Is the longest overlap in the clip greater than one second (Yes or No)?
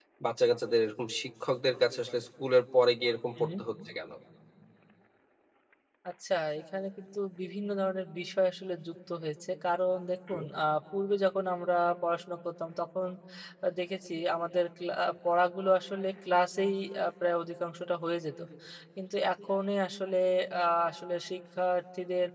No